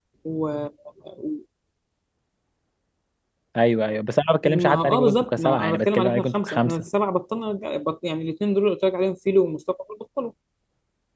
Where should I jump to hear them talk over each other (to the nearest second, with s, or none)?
4 s